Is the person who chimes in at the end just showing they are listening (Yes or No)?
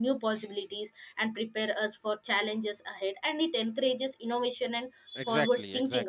No